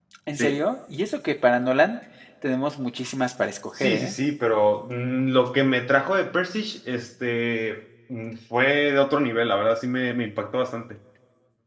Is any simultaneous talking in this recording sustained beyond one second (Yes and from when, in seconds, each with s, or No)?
No